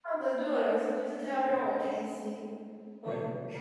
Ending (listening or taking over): taking over